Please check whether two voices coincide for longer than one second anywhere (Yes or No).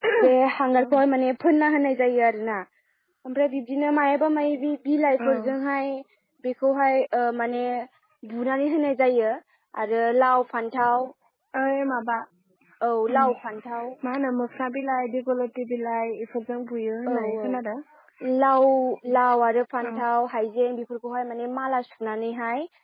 No